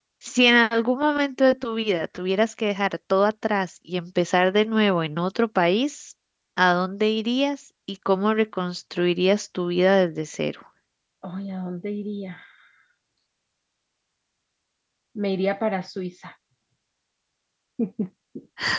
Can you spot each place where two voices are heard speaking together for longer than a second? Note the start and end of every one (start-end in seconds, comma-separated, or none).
none